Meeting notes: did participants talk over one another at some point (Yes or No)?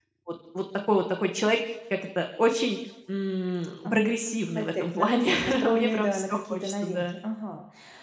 Yes